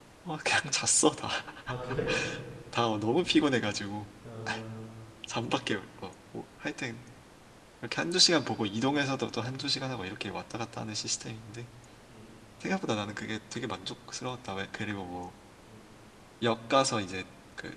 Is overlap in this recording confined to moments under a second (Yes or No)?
Yes